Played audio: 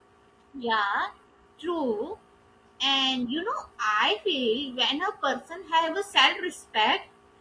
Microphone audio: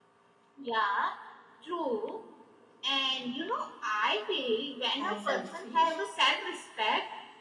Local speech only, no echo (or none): as selfish.